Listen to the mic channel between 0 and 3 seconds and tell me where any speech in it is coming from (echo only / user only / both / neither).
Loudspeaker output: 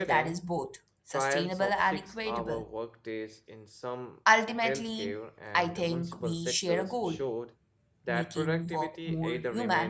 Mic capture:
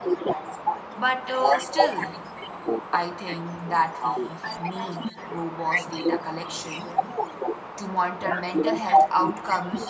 both